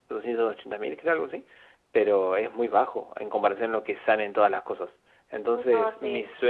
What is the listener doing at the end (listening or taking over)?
listening